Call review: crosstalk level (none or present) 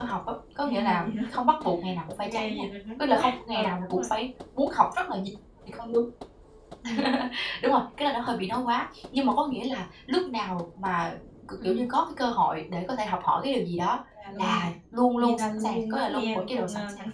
present